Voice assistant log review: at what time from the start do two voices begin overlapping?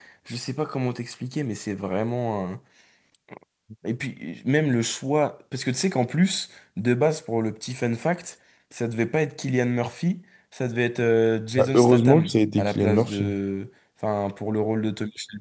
11.6 s

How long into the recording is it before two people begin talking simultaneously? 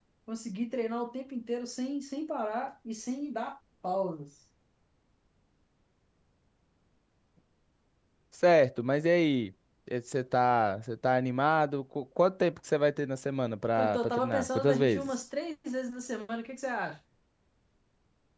13.8 s

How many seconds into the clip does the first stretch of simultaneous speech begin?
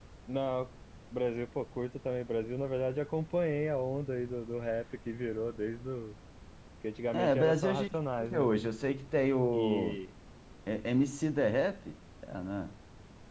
7.1 s

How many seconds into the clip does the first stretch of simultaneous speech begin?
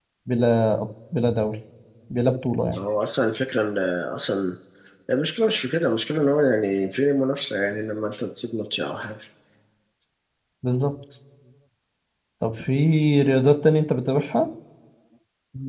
none

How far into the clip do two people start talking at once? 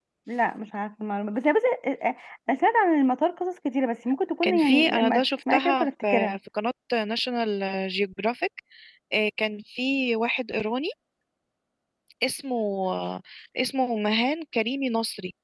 4.4 s

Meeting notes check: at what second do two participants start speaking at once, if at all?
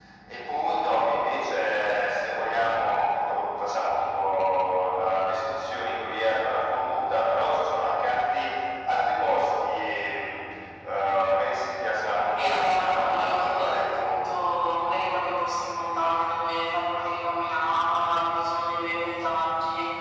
12.4 s

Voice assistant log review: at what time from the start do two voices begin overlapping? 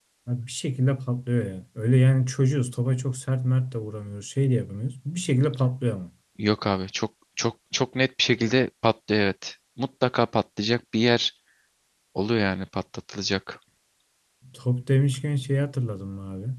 none

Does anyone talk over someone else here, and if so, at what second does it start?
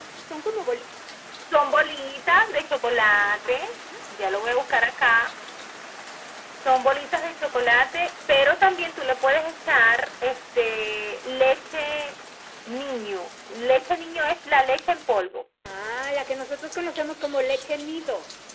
none

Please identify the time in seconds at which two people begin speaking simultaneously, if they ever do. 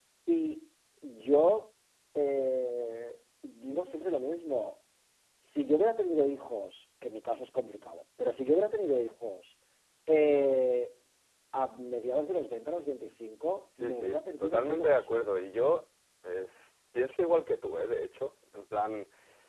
13.8 s

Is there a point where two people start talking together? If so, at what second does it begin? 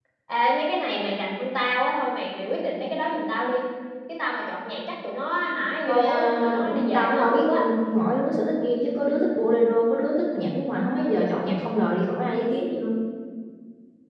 5.9 s

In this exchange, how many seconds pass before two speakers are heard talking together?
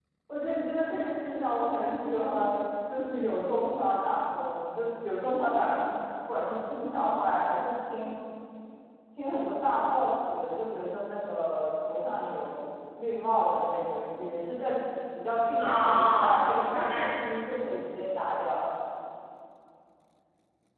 15.6 s

